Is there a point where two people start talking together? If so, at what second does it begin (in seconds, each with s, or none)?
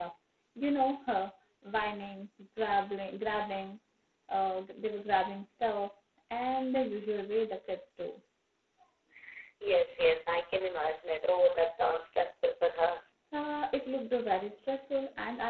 none